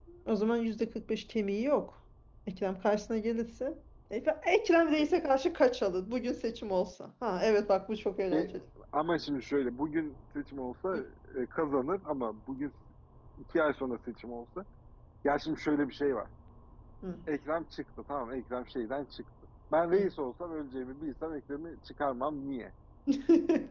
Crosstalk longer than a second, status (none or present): none